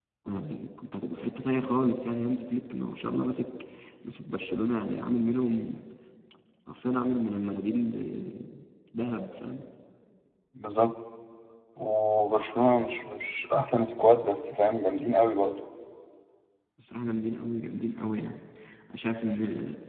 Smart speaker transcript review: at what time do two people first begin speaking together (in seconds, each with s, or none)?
none